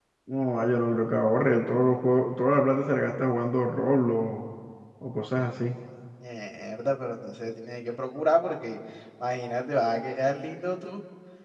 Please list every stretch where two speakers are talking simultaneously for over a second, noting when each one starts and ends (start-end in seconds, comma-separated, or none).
none